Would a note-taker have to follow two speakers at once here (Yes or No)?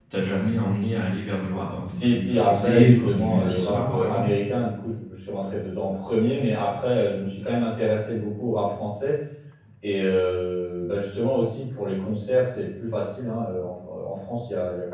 Yes